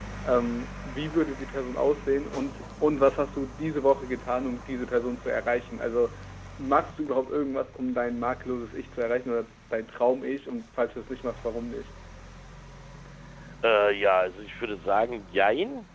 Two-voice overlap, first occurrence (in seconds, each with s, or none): none